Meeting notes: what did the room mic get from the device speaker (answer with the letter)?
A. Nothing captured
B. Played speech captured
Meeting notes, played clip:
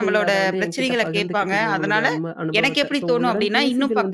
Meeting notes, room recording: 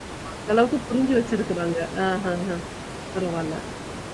A